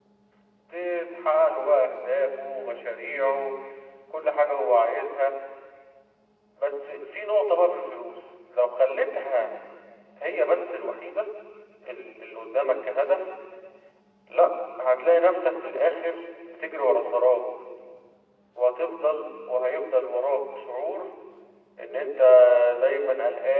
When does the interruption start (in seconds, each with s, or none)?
none